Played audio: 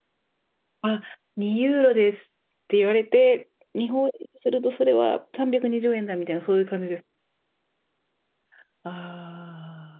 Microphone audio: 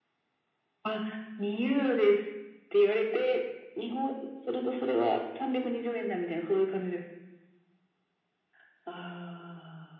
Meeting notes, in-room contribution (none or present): none